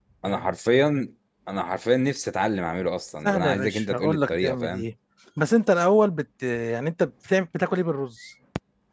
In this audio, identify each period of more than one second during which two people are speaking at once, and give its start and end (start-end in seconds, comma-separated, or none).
3.2-4.8